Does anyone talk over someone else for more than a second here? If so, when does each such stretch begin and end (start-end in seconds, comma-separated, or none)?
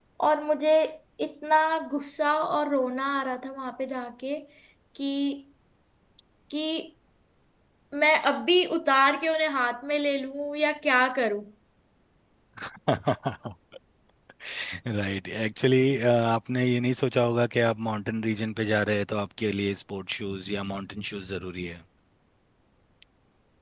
none